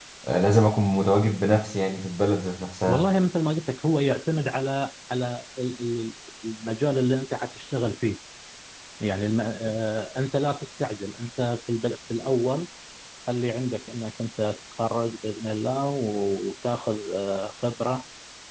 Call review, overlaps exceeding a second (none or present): none